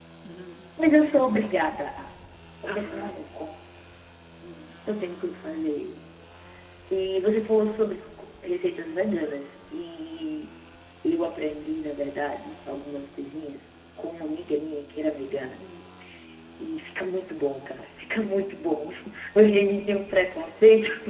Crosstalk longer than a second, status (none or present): none